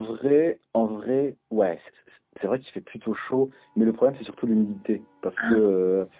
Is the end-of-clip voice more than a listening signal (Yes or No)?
No